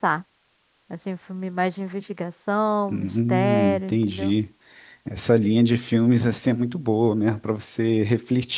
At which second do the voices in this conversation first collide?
2.9 s

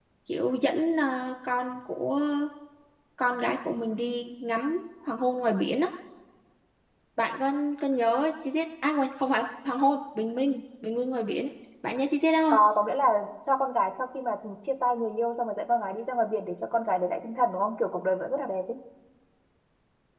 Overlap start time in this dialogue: none

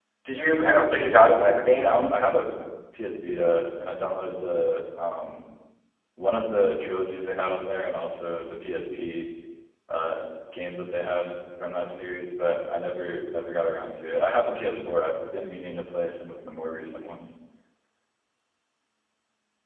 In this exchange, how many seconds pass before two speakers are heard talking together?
0.6 s

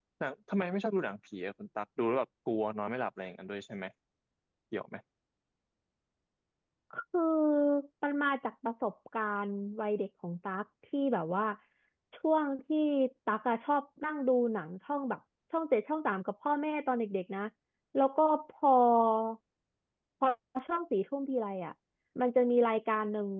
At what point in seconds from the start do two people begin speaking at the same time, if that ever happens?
none

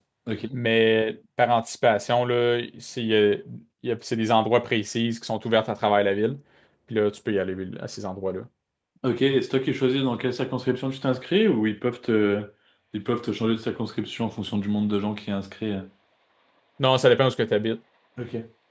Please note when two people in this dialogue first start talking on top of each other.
none

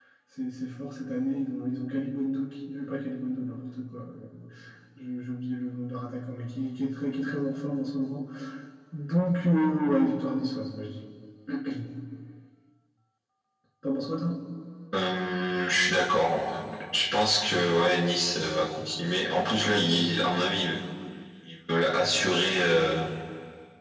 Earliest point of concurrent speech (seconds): none

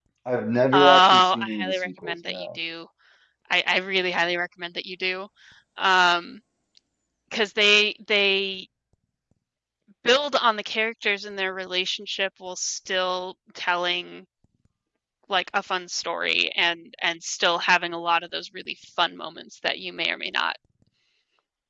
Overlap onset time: 0.7 s

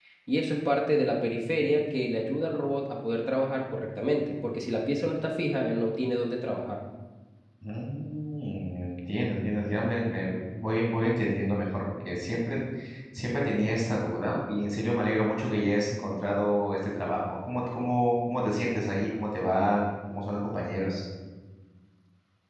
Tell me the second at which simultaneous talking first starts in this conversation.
none

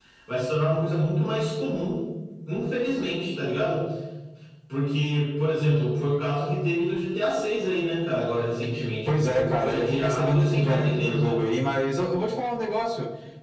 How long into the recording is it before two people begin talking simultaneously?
9.1 s

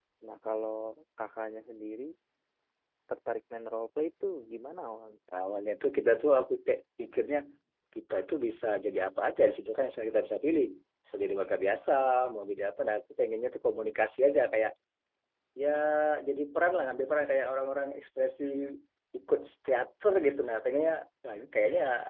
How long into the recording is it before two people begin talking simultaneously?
none

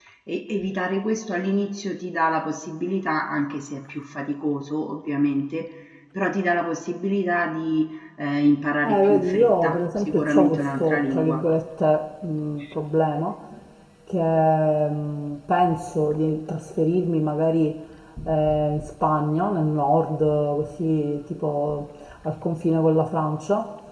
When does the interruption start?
8.8 s

